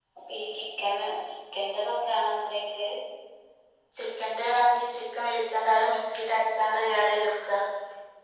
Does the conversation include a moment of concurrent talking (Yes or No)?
No